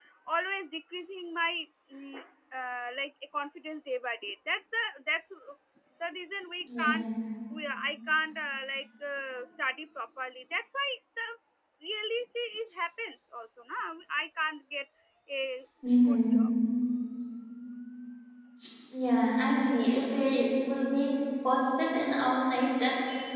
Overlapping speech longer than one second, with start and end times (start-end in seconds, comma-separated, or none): none